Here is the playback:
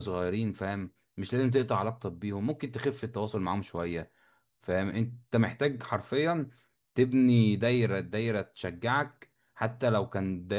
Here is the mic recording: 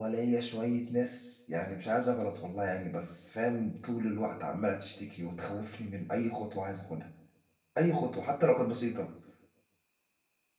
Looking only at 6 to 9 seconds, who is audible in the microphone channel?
user only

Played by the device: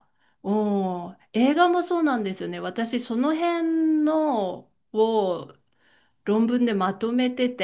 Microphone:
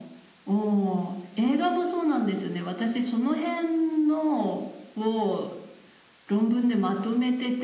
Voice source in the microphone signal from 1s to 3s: echo only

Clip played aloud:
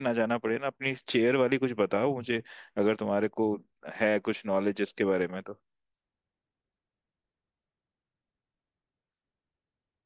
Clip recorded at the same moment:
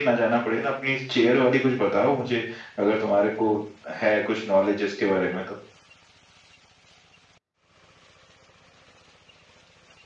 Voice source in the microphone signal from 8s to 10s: neither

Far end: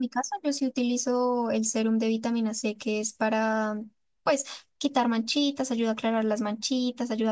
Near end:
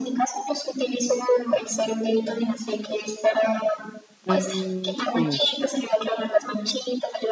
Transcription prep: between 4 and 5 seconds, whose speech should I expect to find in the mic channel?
both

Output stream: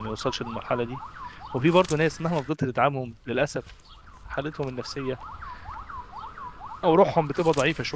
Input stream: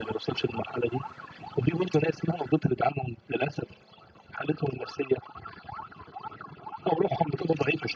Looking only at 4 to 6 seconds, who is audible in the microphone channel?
echo only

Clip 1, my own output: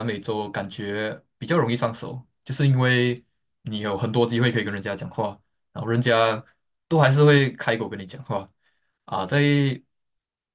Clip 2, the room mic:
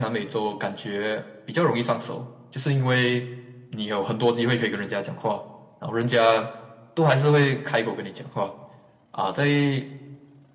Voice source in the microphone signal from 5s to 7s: echo only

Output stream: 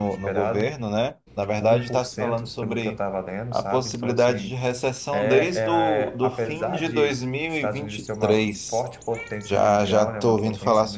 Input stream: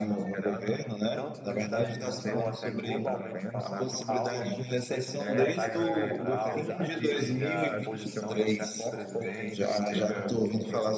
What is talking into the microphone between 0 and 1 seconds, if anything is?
echo only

